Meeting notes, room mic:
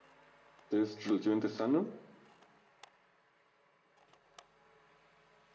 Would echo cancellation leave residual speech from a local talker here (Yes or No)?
Yes